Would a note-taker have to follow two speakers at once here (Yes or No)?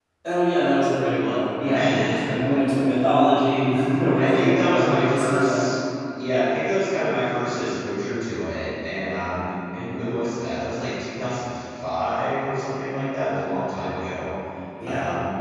Yes